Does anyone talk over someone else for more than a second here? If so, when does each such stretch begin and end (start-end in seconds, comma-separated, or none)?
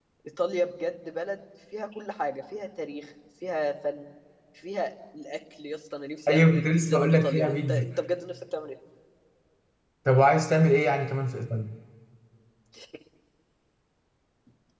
6.3-7.9